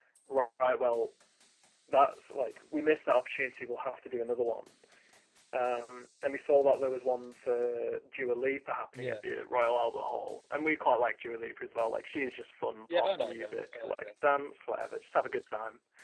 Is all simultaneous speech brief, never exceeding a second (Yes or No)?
No